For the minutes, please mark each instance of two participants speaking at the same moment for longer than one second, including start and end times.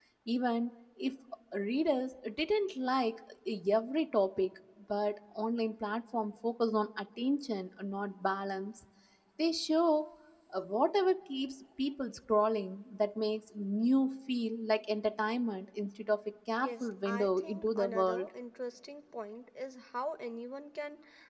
16.6-18.3

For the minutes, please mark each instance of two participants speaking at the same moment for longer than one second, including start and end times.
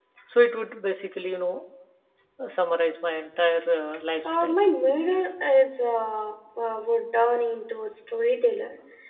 none

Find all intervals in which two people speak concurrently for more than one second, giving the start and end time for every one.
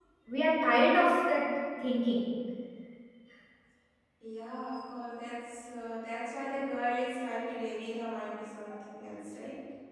none

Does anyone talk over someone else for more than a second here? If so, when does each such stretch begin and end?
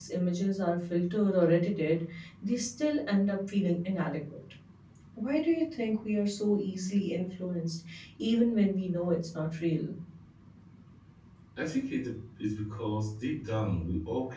none

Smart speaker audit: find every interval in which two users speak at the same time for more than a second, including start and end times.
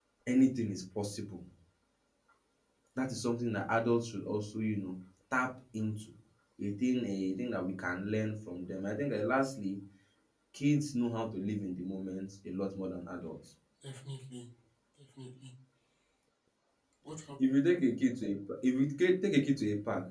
none

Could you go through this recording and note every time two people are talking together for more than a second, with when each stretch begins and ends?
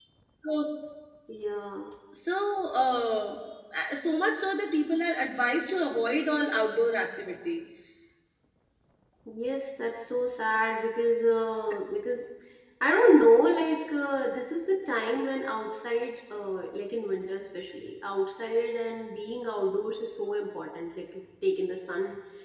none

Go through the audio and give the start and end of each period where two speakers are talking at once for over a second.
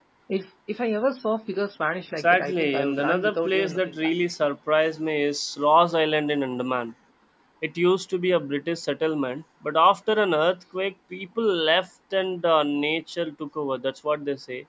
2.2-4.1

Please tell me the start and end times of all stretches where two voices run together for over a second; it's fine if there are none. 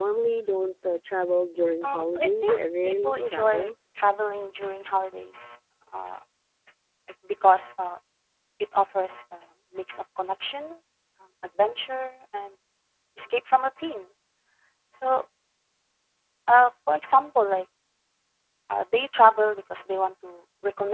1.8-3.7

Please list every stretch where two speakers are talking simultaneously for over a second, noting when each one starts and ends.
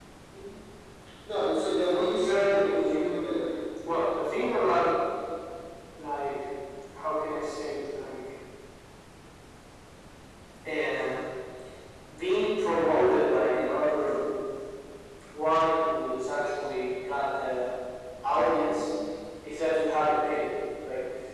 1.9-3.5

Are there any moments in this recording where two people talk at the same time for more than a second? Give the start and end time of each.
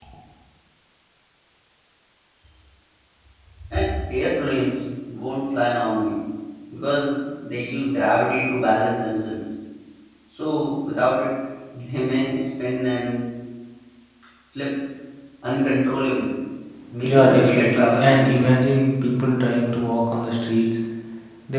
17.0-18.5

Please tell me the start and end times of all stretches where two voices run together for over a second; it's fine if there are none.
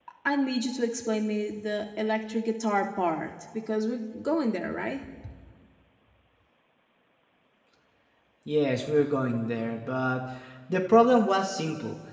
none

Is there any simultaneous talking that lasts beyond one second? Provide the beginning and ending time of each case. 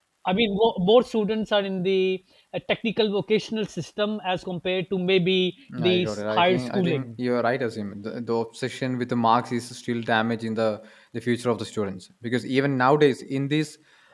5.8-7.1

